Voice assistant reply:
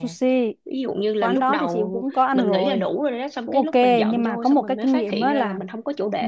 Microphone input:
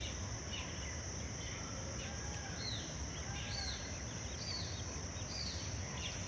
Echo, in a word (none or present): none